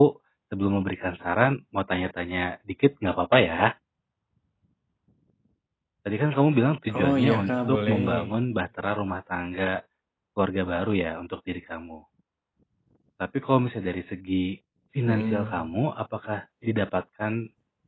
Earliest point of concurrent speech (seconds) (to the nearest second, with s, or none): 7 s